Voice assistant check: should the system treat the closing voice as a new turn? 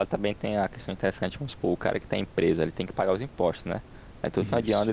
No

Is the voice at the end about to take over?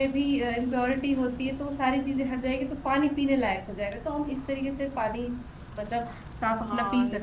Yes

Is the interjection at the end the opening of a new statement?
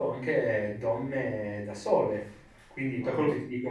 No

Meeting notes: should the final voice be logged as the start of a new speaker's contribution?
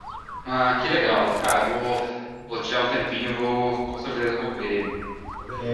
Yes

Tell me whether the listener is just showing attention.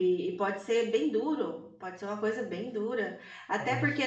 Yes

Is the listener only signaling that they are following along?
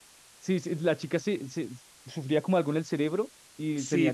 No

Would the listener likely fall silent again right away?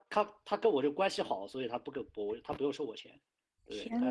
Yes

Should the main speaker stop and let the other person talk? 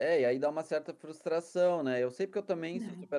No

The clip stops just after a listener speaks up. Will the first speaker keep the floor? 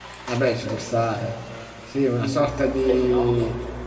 Yes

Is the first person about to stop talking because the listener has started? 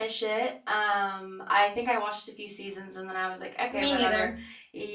No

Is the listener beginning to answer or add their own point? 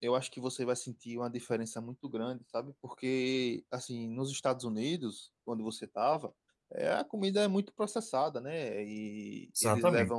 No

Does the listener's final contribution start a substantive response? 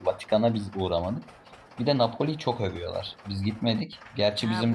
Yes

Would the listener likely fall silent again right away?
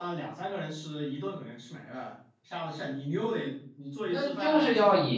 No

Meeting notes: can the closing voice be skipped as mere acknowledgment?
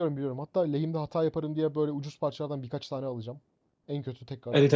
No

